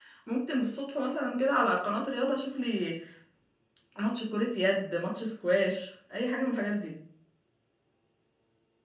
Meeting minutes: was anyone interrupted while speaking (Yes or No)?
No